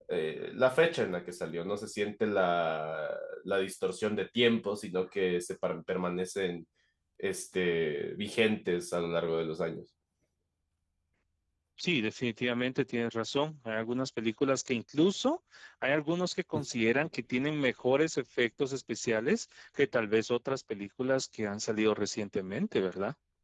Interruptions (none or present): none